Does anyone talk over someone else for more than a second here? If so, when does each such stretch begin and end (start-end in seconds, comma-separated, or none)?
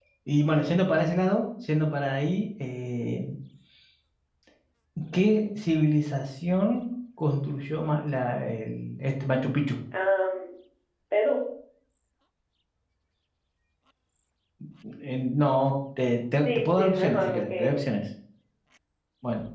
16.4-17.7